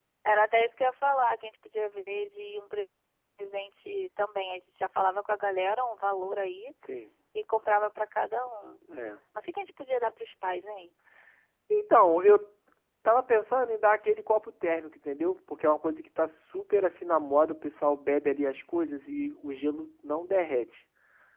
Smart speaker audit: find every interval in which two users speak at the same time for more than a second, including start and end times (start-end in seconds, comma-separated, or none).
none